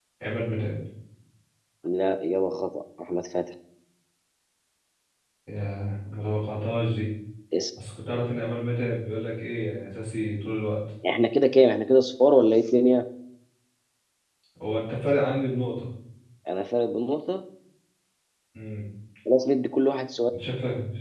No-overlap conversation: Yes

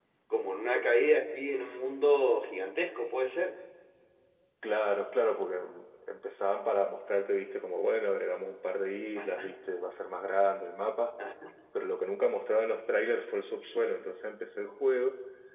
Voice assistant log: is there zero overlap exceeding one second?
Yes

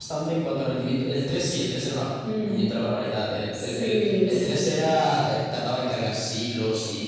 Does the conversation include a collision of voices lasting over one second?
Yes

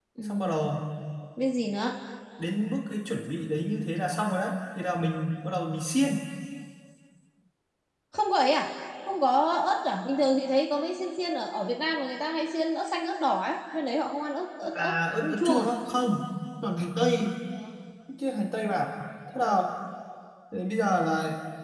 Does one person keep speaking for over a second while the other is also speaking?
No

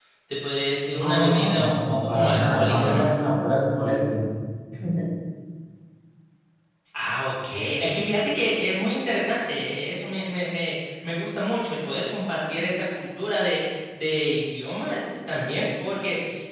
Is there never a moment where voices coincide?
No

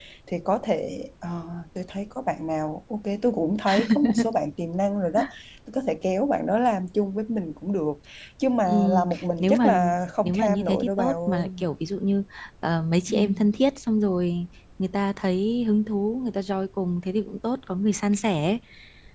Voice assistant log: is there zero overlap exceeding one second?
No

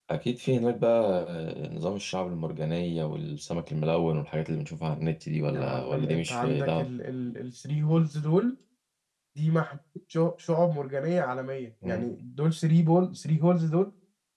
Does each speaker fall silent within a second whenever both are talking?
No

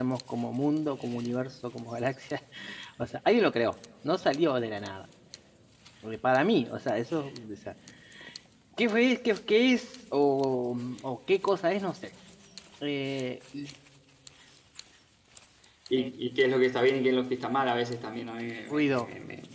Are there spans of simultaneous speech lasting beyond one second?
No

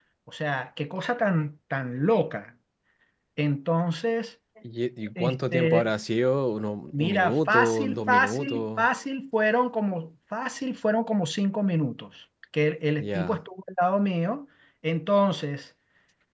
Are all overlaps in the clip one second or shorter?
No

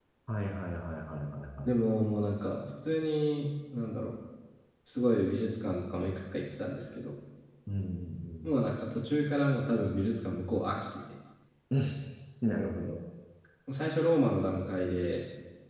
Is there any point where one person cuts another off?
No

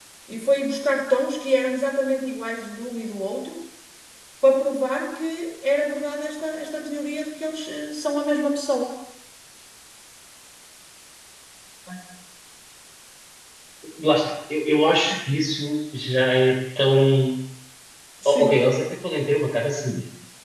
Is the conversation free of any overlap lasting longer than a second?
Yes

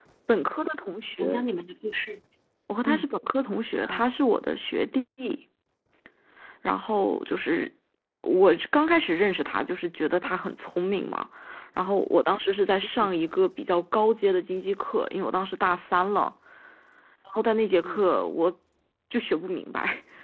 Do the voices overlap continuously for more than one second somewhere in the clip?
No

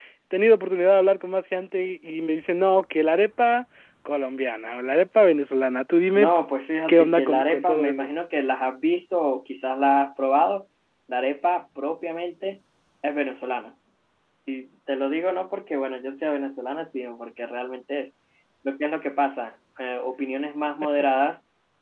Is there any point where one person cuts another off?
Yes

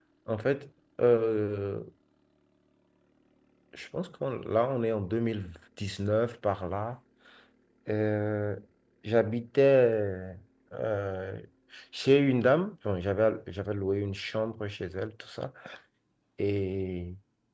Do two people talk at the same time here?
No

